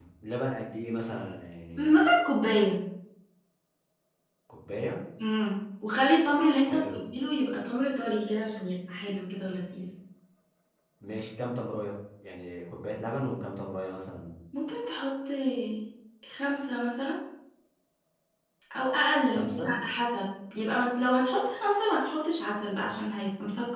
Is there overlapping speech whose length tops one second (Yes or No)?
No